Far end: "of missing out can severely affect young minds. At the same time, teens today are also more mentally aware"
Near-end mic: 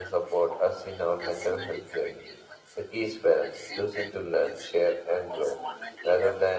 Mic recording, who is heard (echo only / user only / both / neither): both